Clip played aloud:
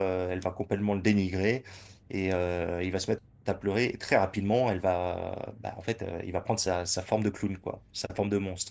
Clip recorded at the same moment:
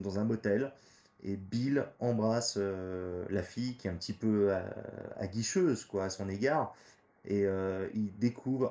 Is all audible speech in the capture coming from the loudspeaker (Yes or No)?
No